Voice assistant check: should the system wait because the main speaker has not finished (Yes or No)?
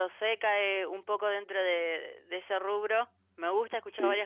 Yes